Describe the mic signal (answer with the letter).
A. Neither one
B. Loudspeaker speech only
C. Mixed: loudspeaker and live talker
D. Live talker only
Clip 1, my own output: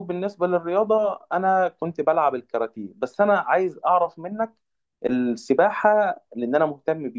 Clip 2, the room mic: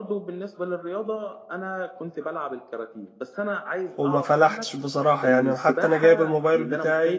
C